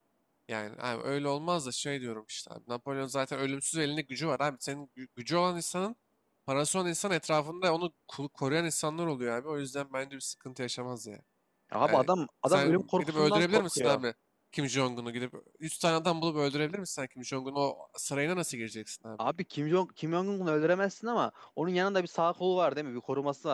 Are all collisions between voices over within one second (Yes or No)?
No